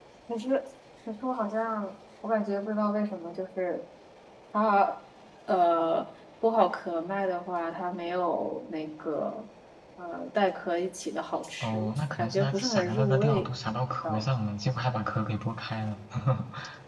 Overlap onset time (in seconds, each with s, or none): 11.6 s